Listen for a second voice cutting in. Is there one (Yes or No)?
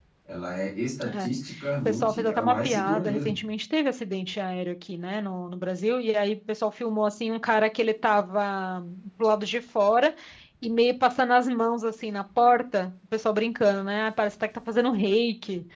Yes